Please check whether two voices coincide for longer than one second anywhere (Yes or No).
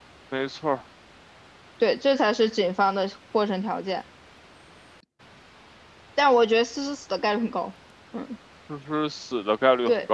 No